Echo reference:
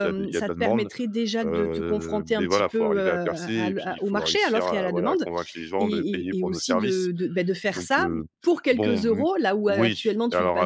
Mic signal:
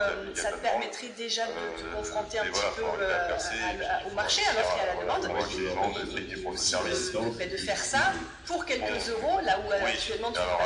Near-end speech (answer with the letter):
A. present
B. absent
A